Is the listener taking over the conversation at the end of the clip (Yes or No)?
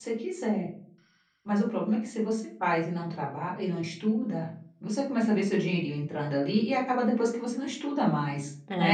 Yes